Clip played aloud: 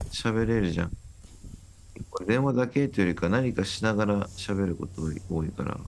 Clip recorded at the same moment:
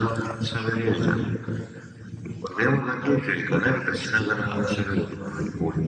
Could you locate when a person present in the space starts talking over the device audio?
none

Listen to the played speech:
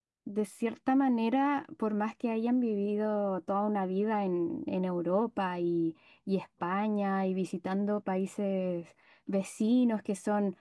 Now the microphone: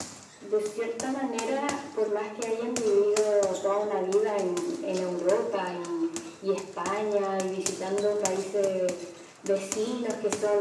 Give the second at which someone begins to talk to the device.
none

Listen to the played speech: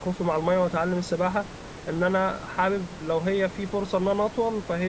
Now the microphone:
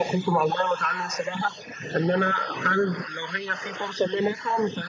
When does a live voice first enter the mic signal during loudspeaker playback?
none

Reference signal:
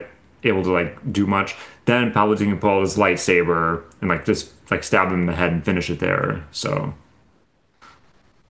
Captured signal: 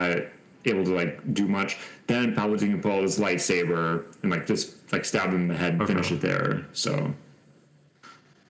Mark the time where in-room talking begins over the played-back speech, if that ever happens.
6 s

